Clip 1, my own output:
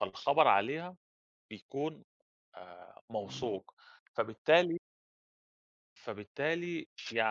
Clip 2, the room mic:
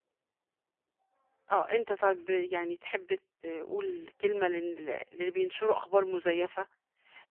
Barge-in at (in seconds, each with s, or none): 1.5 s